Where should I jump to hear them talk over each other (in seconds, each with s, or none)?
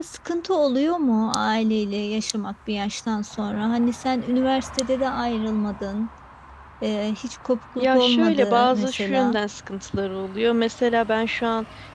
7.8 s